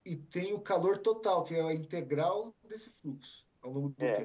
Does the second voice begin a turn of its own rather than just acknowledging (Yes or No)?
Yes